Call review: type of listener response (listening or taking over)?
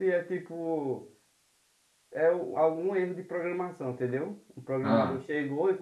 listening